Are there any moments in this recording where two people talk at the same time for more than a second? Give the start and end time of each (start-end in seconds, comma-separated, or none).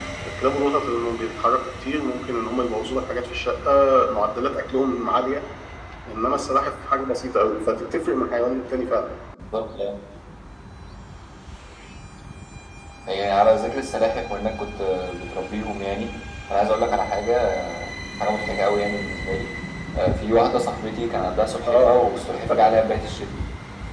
none